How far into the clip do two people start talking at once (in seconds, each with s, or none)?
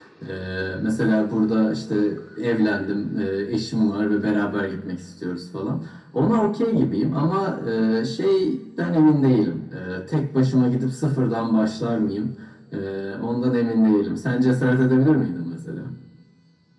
none